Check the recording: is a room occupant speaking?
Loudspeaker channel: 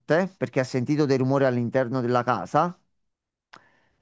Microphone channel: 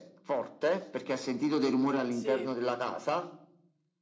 Yes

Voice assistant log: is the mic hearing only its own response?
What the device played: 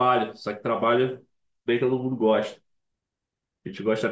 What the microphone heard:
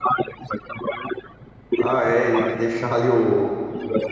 No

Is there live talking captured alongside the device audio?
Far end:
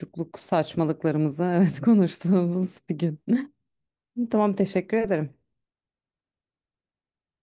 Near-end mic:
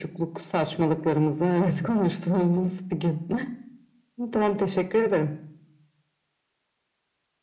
No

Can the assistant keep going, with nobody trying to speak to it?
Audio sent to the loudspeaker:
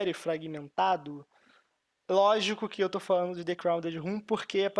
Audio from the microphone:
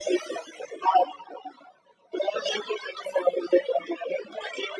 Yes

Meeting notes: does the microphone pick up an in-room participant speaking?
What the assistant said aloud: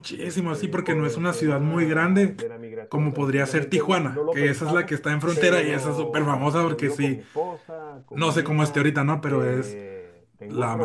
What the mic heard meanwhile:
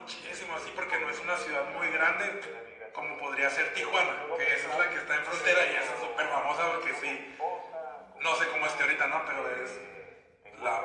No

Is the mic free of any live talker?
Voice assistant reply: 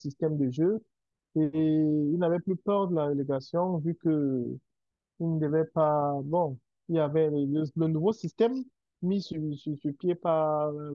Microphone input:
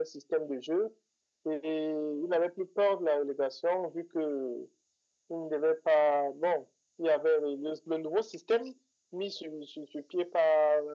Yes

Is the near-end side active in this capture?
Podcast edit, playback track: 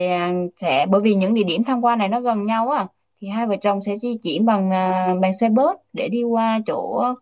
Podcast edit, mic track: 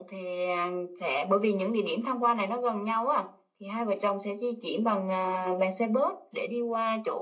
No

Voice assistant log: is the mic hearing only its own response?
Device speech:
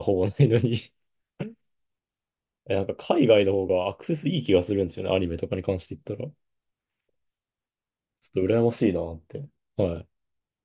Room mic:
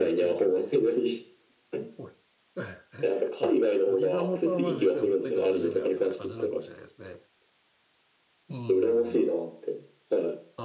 No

